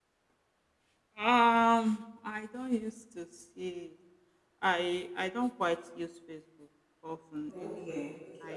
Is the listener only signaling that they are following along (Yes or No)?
No